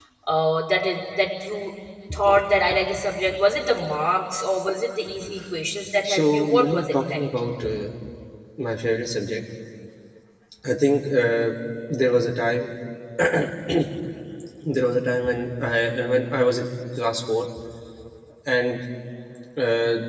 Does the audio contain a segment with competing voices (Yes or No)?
Yes